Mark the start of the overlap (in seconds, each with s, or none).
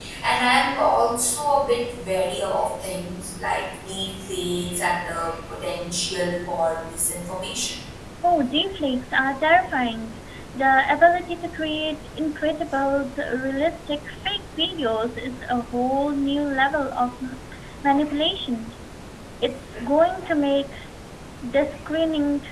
none